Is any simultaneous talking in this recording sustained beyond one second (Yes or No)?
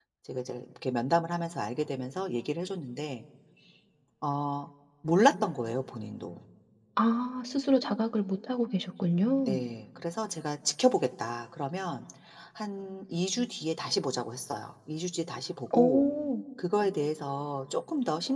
No